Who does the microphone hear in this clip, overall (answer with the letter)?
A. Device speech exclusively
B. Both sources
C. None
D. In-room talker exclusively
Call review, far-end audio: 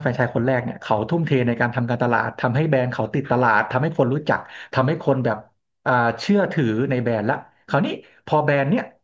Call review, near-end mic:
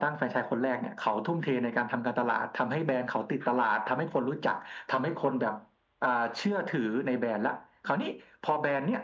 A